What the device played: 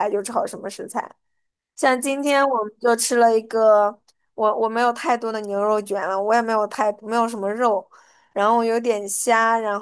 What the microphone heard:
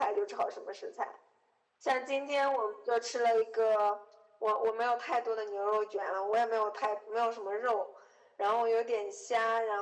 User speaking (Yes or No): No